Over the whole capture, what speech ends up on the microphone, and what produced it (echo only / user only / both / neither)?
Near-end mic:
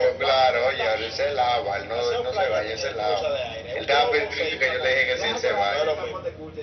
both